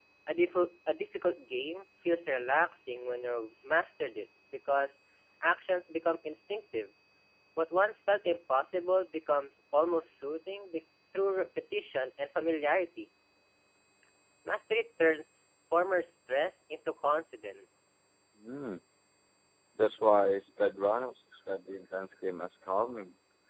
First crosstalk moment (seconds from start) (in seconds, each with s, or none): none